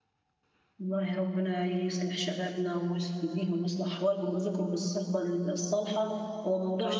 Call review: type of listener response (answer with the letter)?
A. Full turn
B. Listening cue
B